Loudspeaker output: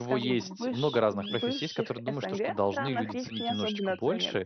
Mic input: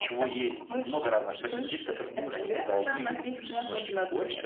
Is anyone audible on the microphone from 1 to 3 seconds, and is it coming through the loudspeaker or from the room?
echo only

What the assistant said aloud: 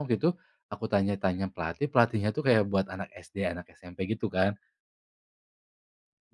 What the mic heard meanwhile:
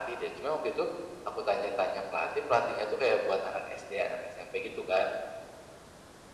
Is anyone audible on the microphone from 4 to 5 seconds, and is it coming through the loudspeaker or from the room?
echo only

